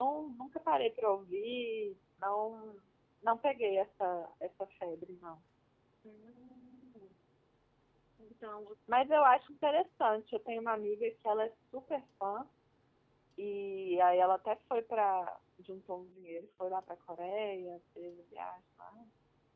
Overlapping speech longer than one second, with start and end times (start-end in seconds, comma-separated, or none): none